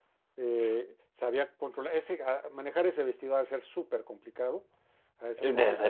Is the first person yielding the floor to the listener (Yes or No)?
Yes